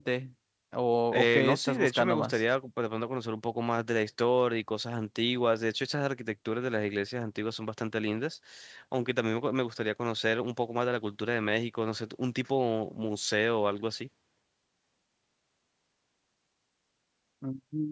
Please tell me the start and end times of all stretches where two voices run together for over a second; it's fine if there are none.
1.1-2.4

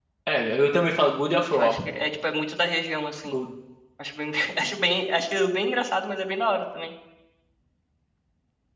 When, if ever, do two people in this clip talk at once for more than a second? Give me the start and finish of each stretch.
none

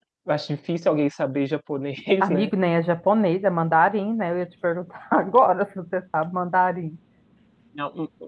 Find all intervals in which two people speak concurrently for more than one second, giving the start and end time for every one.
none

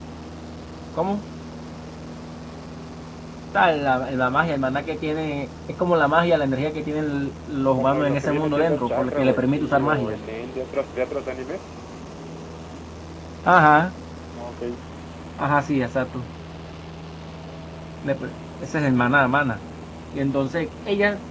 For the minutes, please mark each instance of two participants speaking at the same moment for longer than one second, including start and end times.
7.8-10.2

